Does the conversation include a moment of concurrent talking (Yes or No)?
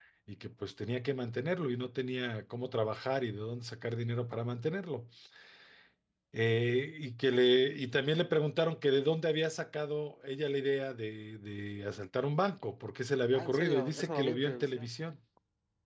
Yes